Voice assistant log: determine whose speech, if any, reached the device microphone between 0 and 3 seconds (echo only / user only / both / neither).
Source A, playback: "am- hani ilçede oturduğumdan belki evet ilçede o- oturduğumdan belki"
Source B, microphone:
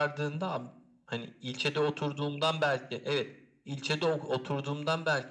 echo only